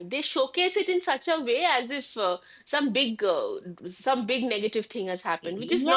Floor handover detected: Yes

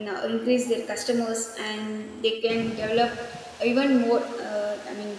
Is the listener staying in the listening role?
Yes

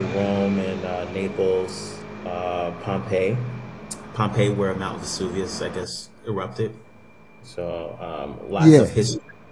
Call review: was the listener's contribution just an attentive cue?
Yes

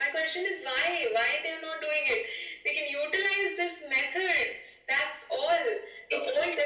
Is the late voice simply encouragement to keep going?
Yes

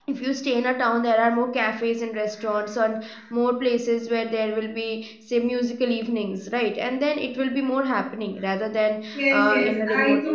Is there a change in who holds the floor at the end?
Yes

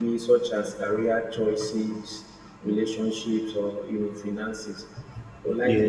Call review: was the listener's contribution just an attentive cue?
Yes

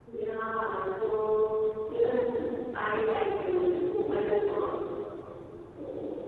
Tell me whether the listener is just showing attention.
No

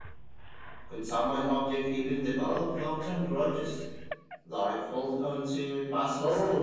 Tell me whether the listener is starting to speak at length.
Yes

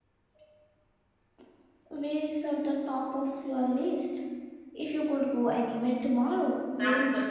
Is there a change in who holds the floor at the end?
Yes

